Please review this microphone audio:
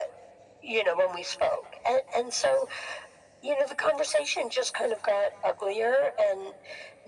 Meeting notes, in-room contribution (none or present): none